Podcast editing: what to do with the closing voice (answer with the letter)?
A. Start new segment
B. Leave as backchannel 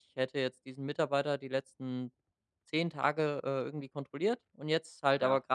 B